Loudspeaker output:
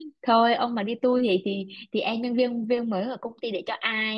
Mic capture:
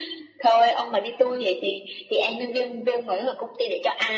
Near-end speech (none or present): none